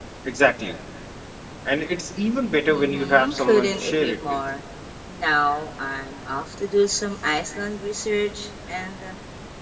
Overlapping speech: Yes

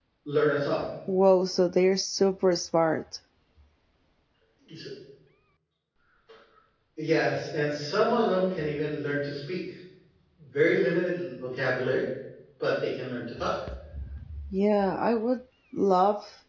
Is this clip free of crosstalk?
Yes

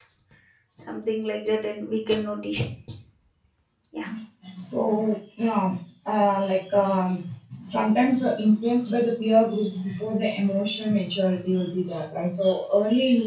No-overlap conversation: Yes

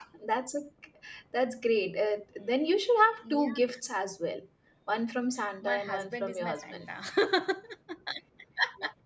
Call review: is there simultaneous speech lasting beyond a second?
Yes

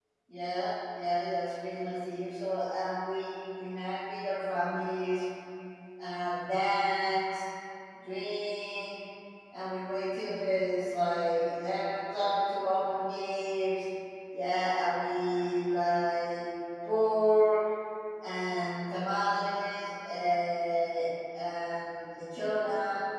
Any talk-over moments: No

